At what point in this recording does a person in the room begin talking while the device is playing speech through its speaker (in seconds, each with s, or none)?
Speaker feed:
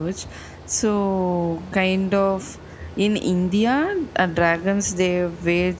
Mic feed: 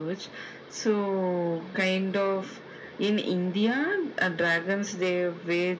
none